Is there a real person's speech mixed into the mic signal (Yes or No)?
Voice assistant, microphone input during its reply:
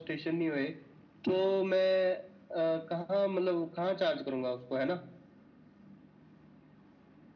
No